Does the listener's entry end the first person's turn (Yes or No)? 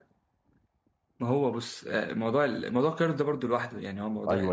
Yes